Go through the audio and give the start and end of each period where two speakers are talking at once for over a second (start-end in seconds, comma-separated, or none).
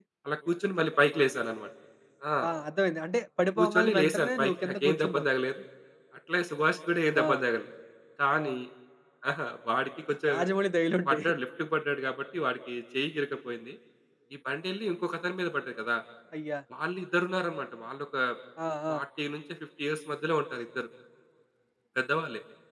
3.6-5.2